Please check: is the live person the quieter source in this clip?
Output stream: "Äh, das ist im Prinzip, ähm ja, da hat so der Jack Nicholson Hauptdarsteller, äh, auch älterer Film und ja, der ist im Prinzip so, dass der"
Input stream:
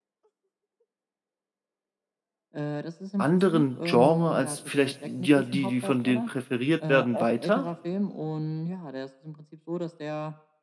No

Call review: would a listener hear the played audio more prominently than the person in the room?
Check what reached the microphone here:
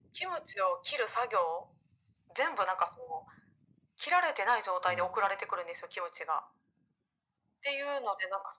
Yes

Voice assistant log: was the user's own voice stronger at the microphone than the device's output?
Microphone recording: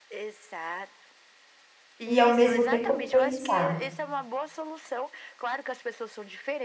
Yes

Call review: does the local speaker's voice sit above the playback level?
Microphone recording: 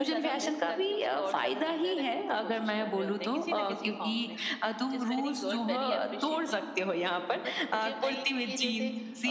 No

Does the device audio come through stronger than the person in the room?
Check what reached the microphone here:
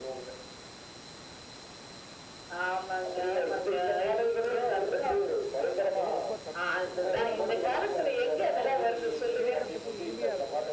Yes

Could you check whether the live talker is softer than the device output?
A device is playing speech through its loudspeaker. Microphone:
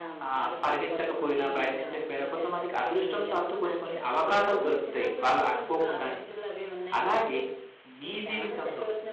No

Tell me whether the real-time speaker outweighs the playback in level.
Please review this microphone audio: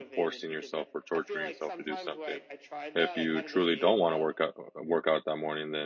Yes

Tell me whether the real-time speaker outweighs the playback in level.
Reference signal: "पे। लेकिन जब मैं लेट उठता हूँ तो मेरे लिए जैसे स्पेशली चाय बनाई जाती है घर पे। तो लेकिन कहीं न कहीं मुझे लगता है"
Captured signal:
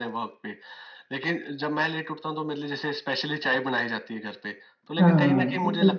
Yes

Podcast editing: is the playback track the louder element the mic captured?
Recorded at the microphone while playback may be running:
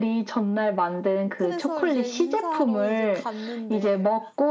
Yes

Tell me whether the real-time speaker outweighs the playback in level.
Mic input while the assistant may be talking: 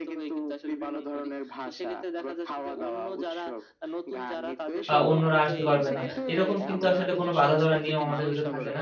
Yes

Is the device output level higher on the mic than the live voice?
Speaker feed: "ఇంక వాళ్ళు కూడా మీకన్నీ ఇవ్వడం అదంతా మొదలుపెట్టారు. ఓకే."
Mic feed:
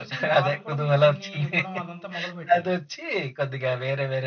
No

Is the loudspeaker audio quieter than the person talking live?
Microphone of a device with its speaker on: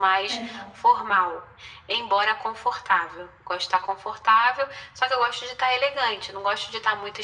No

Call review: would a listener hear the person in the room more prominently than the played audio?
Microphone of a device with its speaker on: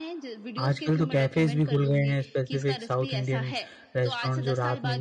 Yes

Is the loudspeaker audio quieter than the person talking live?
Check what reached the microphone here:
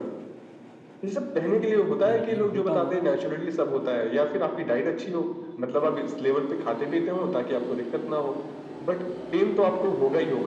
No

